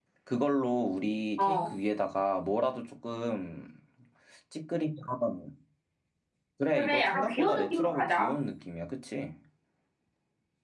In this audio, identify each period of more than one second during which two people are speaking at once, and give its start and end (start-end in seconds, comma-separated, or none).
6.8-8.3